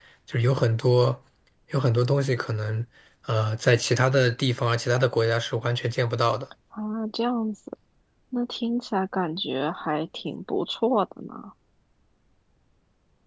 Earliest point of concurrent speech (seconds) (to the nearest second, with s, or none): none